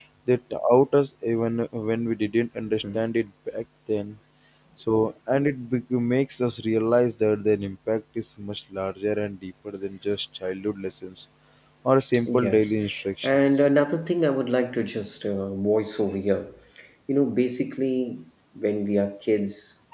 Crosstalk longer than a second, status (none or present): none